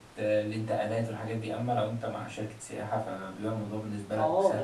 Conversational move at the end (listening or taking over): taking over